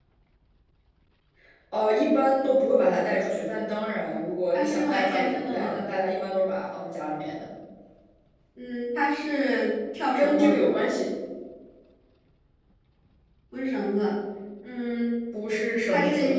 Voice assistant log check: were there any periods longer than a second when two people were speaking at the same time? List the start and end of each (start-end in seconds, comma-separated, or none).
4.5-5.8